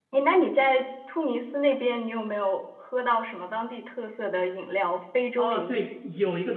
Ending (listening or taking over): taking over